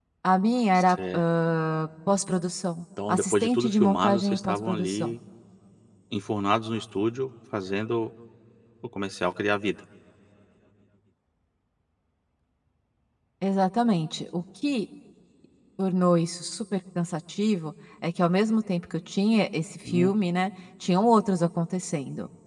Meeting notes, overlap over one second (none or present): present